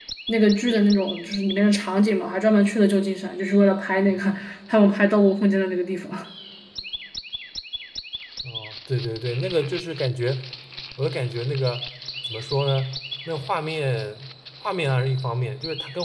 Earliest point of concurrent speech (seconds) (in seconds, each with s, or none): none